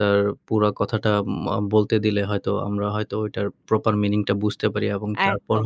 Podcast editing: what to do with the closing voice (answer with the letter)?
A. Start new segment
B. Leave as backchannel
A